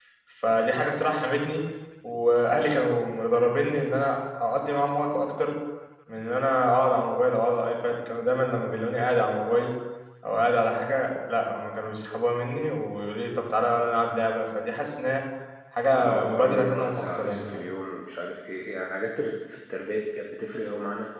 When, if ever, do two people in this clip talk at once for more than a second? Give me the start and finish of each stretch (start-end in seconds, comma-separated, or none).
16.0-17.6